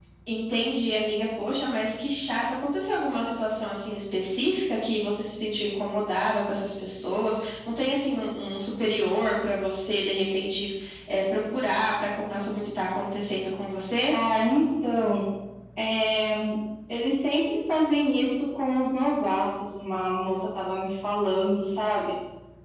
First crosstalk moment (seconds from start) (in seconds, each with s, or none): none